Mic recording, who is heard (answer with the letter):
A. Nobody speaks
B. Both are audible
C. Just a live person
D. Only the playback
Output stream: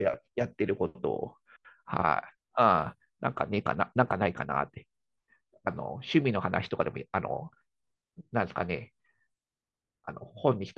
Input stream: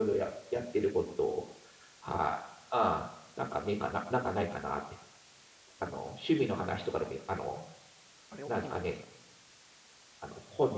B